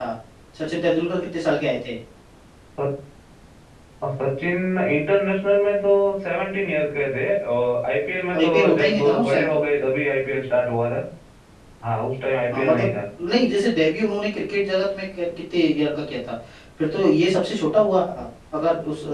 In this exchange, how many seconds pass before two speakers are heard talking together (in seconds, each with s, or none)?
8.4 s